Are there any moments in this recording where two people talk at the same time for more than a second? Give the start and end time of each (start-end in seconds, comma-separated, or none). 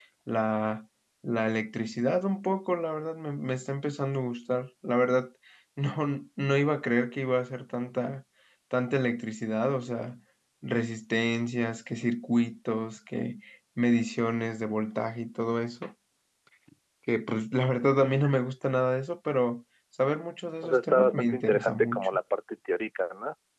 20.6-22.2